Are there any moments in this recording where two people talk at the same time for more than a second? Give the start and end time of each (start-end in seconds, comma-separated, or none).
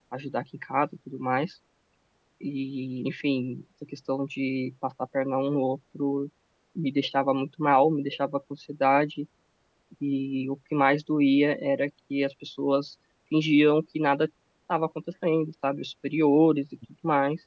none